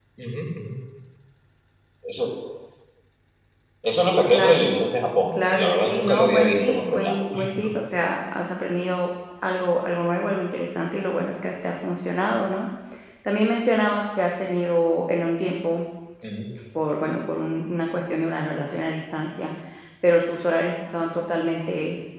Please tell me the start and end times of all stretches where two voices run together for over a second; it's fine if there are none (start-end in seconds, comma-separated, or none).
5.5-7.2